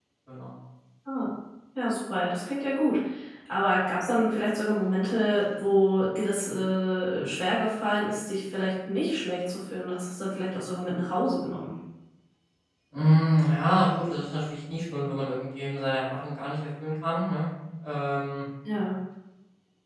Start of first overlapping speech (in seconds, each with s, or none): none